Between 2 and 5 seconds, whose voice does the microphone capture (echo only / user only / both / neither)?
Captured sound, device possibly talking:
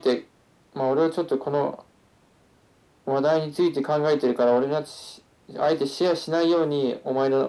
echo only